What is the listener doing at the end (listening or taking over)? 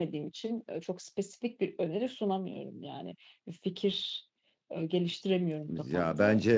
taking over